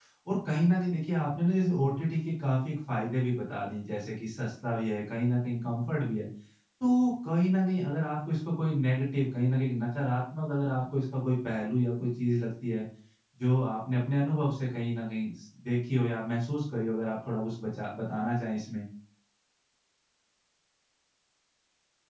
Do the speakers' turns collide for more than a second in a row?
No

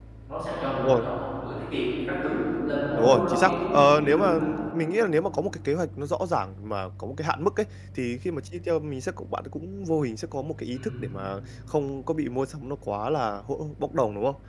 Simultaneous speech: Yes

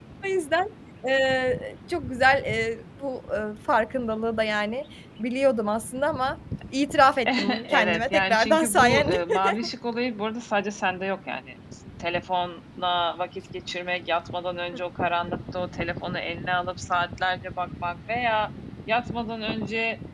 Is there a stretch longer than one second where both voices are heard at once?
Yes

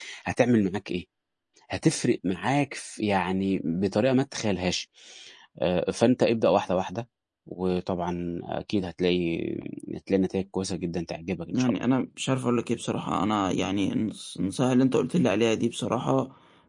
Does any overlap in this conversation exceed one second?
No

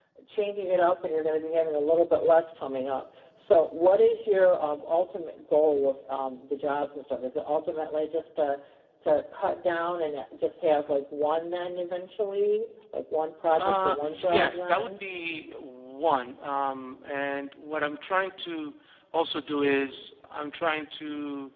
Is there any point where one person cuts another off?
Yes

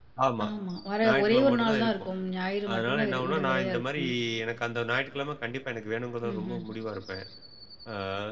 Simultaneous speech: Yes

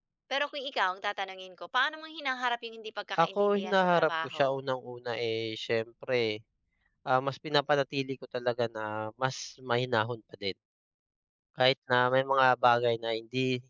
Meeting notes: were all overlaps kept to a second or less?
No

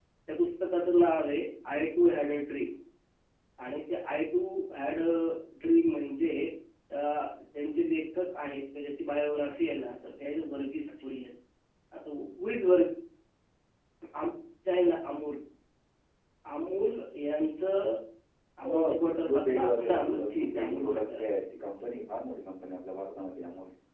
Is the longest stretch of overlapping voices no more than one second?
No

